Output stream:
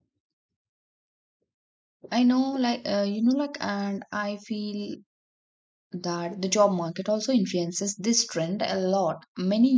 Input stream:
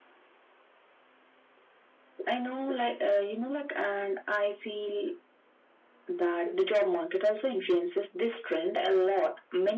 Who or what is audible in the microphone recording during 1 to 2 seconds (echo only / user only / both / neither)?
neither